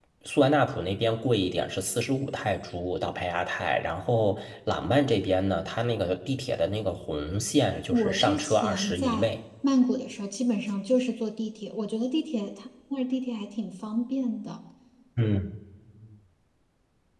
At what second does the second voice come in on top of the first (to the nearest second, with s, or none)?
8 s